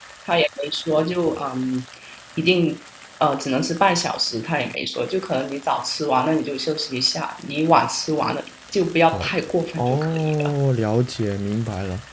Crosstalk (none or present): present